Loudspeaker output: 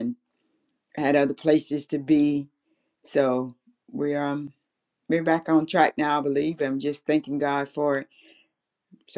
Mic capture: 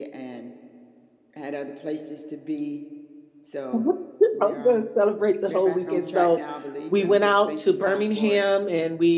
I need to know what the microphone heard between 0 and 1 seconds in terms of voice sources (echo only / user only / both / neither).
echo only